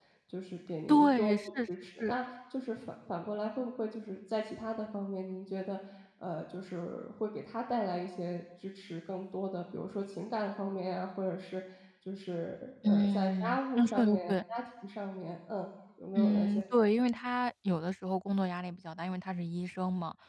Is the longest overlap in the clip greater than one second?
Yes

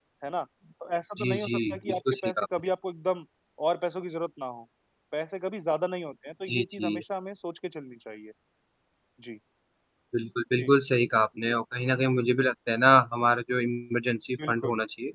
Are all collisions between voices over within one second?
No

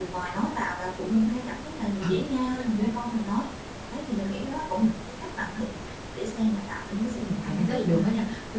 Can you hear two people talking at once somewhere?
Yes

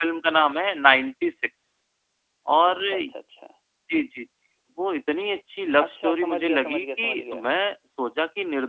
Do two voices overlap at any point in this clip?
Yes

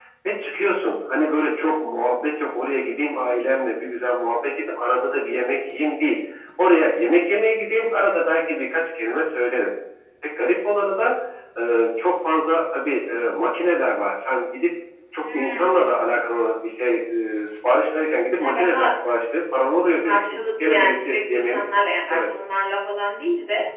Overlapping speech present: Yes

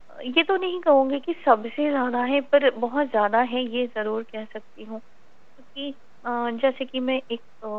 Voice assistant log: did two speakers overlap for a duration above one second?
No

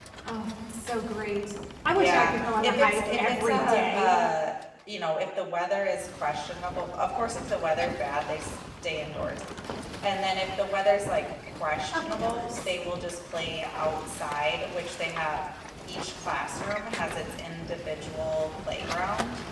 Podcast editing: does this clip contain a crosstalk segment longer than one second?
Yes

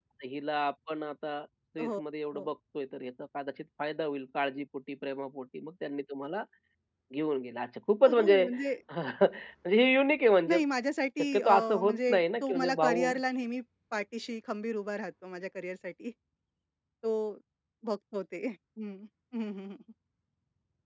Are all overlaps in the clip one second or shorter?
No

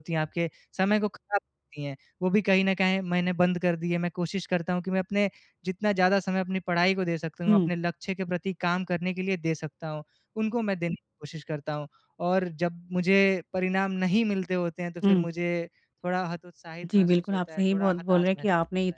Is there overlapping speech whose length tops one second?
Yes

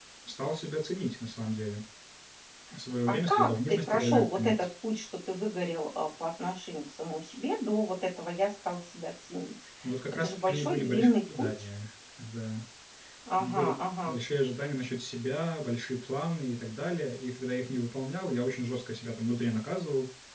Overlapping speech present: Yes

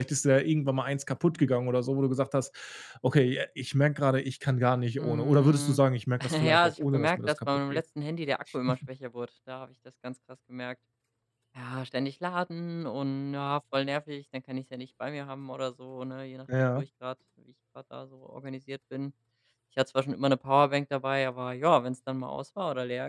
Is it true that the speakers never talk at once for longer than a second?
No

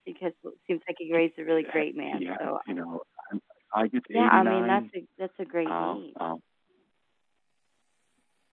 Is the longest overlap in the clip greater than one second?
Yes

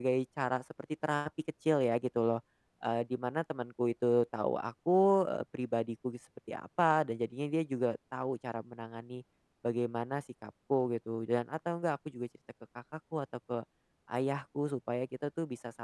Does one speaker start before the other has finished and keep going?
No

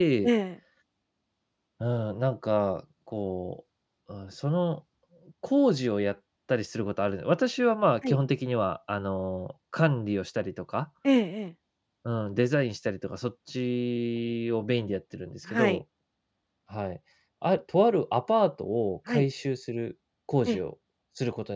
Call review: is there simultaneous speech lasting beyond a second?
No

